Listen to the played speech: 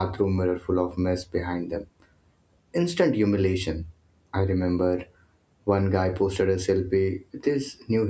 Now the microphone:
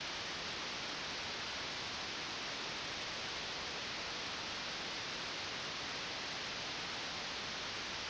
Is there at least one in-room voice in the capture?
No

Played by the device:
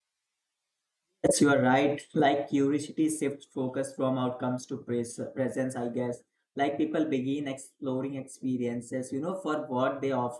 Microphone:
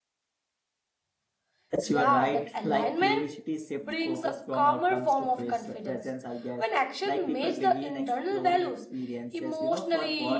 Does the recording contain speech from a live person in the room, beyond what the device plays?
Yes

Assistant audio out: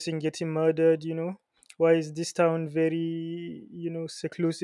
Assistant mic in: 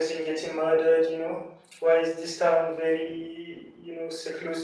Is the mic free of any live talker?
Yes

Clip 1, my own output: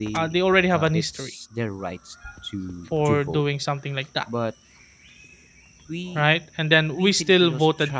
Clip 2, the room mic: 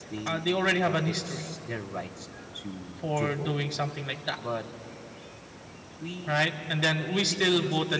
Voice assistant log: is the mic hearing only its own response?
Yes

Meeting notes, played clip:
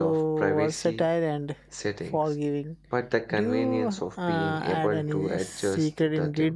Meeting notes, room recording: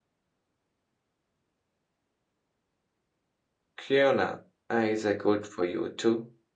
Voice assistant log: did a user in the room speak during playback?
Yes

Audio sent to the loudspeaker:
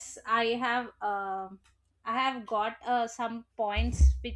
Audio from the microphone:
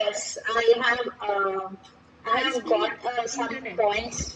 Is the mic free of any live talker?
No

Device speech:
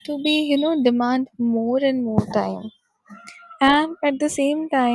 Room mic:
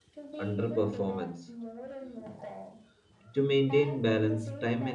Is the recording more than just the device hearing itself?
Yes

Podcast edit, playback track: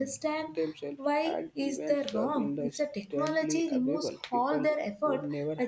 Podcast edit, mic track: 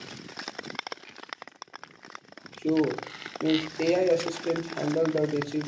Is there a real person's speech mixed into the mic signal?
Yes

